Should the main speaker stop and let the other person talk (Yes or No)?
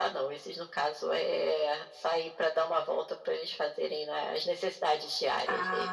Yes